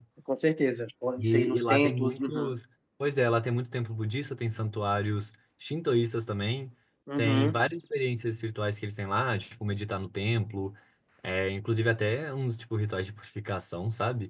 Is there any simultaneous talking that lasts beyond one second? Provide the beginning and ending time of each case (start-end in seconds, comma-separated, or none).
1.2-2.6